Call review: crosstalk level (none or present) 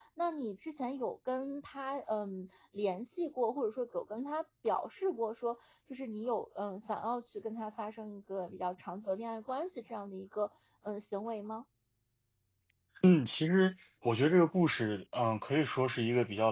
none